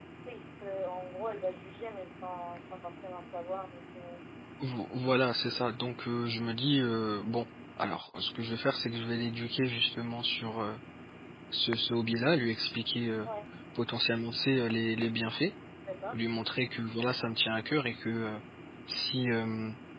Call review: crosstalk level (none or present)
none